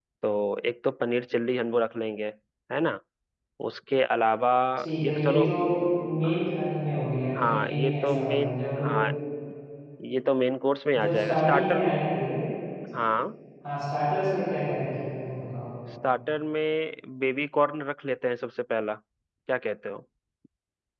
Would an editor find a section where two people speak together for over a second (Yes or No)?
Yes